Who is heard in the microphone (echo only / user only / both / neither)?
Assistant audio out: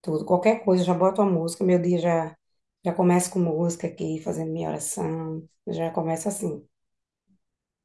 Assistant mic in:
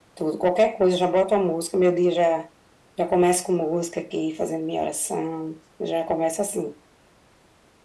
echo only